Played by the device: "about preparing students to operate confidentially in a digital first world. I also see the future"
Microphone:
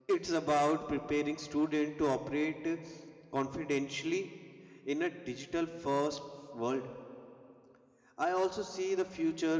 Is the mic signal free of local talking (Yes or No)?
Yes